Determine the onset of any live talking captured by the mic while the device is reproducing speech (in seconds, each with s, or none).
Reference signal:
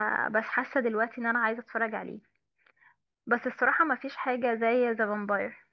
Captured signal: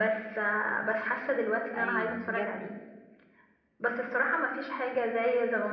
1.7 s